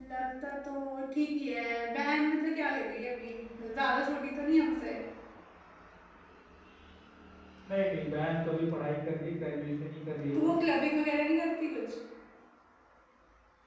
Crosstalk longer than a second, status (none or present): none